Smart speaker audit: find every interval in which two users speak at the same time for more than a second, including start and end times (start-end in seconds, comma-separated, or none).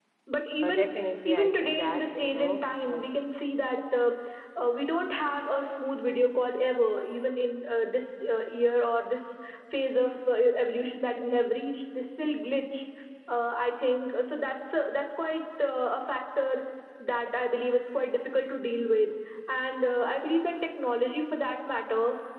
1.2-3.2